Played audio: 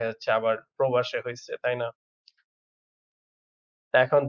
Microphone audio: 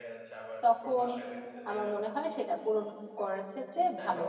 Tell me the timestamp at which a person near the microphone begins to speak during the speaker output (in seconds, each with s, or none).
0.6 s